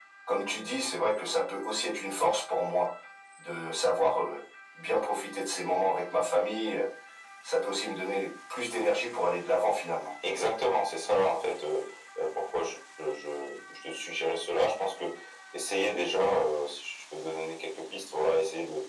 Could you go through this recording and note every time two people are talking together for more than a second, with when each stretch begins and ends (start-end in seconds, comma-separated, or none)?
none